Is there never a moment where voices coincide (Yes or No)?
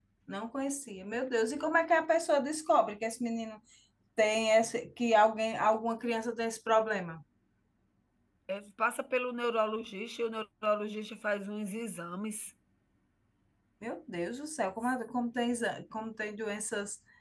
Yes